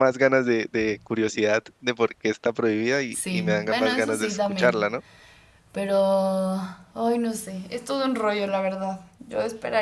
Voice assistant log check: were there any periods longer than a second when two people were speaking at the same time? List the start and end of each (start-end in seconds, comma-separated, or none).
3.1-4.9